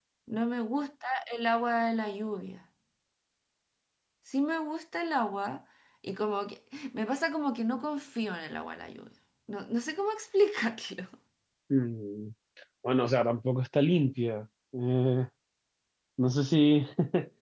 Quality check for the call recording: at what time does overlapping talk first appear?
none

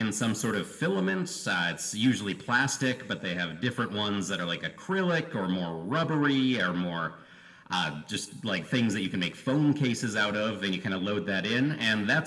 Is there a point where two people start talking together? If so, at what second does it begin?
none

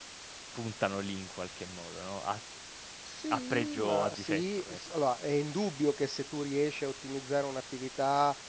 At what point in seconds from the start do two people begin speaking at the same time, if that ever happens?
3.3 s

